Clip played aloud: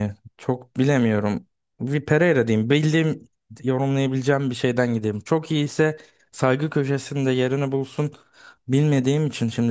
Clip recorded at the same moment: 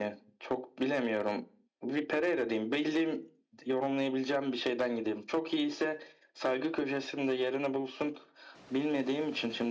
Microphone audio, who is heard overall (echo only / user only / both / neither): echo only